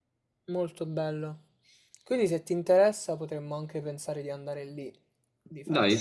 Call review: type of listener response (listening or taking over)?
taking over